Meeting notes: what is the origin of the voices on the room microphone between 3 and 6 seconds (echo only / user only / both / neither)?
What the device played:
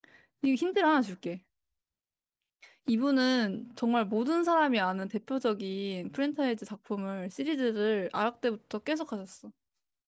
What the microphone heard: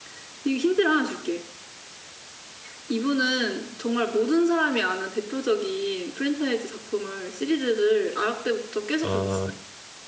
echo only